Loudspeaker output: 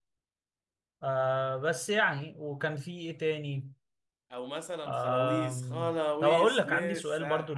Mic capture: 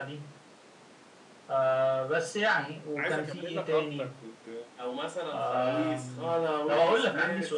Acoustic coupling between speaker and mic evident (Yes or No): Yes